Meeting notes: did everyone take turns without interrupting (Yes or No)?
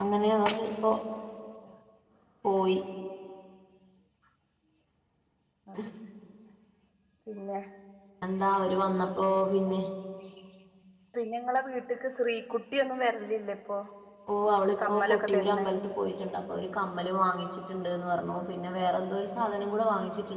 No